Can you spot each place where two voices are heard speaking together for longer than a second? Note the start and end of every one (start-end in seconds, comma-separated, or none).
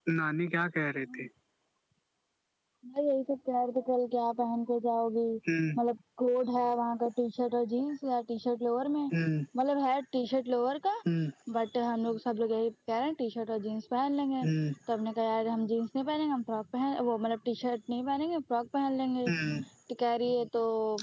none